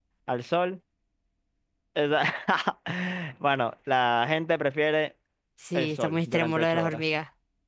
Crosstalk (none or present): present